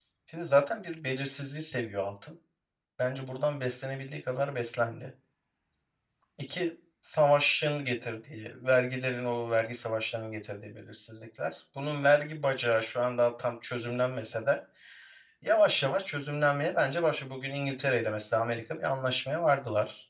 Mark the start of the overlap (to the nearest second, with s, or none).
none